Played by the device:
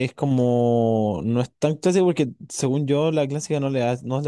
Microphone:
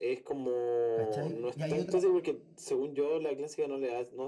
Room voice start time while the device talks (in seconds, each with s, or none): 0.9 s